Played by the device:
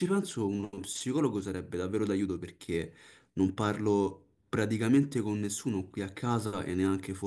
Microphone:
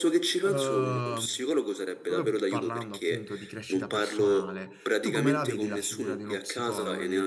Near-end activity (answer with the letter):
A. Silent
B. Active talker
B